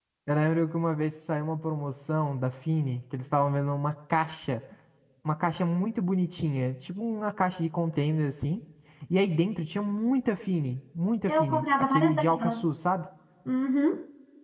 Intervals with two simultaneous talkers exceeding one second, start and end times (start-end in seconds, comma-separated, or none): 11.3-12.6